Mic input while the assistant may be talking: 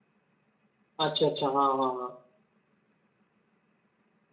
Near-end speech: present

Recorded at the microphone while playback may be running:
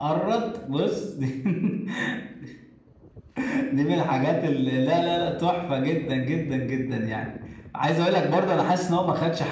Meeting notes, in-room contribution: present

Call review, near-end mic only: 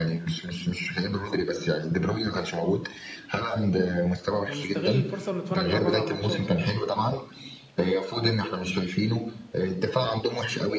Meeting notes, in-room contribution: present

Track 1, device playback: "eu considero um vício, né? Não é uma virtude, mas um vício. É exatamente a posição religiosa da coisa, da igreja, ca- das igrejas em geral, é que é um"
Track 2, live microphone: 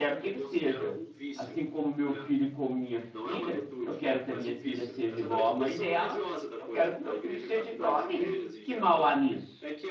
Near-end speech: present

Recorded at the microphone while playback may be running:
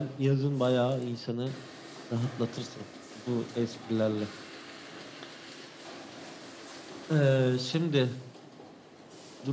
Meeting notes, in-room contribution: none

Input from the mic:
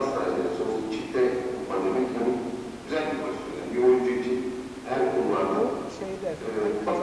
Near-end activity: present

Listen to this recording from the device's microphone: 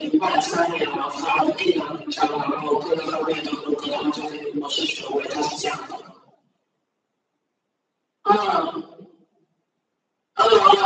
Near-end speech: none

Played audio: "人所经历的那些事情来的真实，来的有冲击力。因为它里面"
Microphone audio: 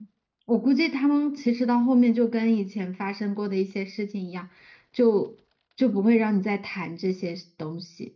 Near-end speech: present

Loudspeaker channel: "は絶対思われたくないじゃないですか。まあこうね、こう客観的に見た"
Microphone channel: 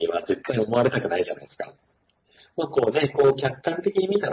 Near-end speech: none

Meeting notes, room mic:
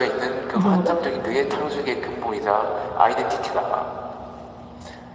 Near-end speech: present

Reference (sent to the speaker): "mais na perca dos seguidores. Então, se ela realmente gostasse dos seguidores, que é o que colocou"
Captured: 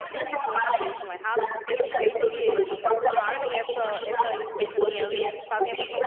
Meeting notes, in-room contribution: present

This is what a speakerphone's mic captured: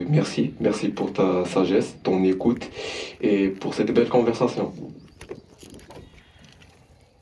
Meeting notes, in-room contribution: none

